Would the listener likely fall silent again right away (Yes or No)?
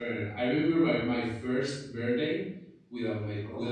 Yes